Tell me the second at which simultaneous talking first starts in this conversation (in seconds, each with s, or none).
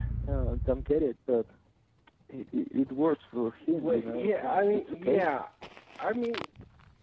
3.7 s